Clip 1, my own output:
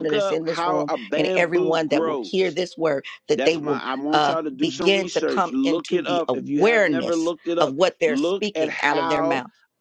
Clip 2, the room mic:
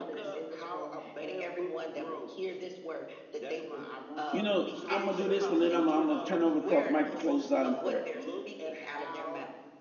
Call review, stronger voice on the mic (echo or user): user